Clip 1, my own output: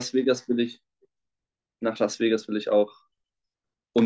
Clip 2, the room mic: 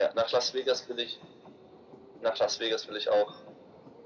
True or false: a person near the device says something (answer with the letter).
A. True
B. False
B